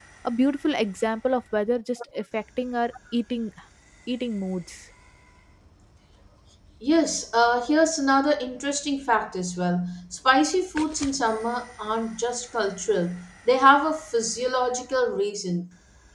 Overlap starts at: none

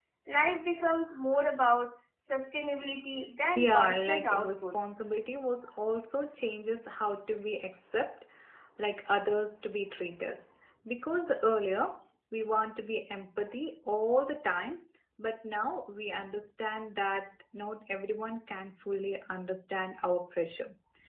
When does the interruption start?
3.6 s

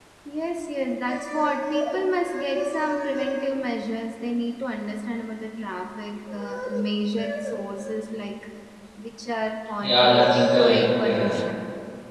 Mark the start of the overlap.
9.8 s

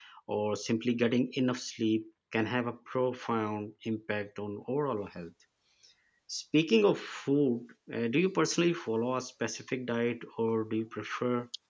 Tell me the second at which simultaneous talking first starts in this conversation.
none

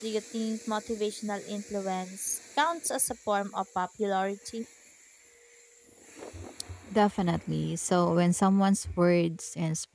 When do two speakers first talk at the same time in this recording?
none

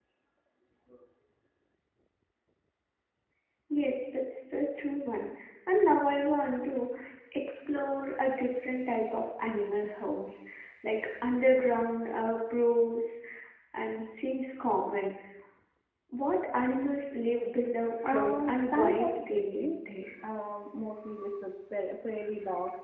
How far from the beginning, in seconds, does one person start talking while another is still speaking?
17.9 s

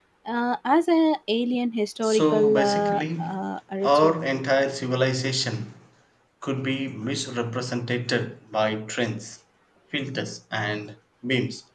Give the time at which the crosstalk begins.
2.0 s

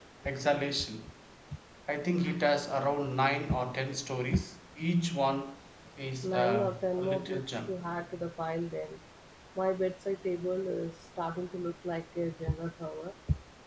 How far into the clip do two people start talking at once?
6.2 s

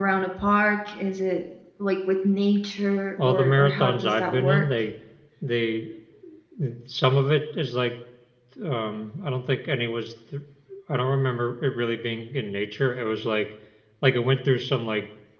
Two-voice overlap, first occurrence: 3.2 s

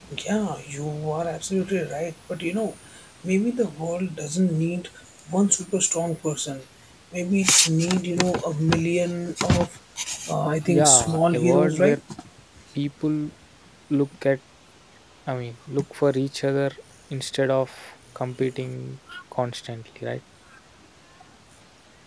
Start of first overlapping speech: 10.7 s

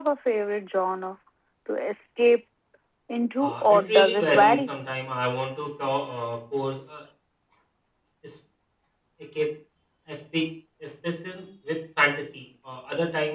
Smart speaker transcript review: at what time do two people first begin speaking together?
3.4 s

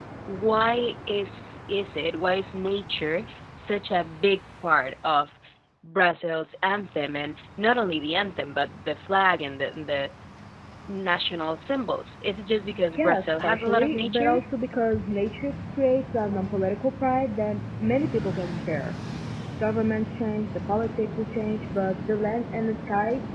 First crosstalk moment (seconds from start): 12.9 s

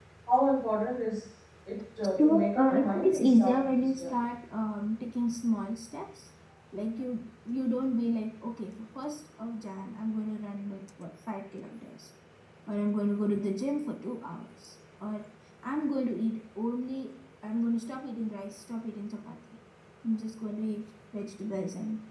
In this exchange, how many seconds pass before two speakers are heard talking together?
2.2 s

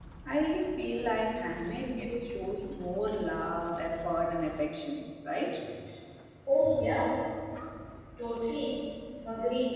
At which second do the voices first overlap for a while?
none

